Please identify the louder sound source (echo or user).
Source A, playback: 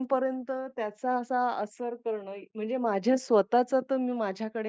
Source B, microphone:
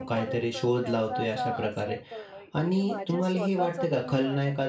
user